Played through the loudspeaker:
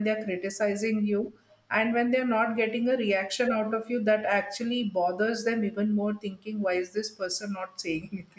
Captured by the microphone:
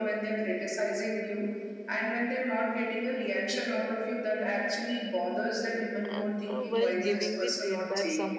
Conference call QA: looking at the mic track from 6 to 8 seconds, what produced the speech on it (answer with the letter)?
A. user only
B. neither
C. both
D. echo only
C